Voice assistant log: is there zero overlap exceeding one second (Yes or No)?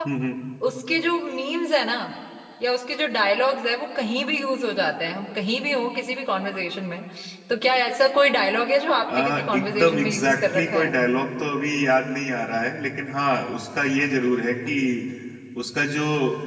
No